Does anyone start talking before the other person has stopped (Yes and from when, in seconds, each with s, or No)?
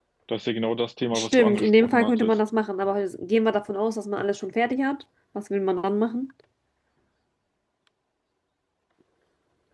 Yes, from 1.1 s